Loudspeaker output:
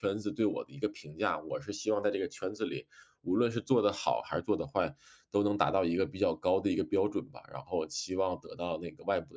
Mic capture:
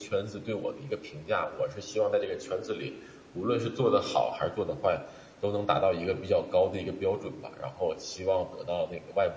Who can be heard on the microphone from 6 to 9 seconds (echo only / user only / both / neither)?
echo only